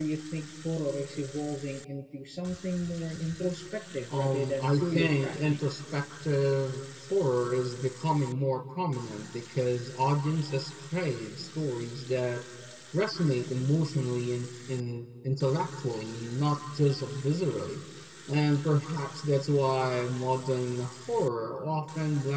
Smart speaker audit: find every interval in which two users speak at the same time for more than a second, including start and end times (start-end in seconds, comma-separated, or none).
4.1-5.7